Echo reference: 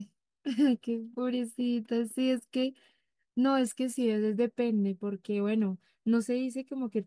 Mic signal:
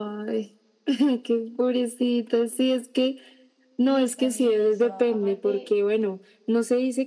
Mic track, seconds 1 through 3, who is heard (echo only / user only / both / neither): echo only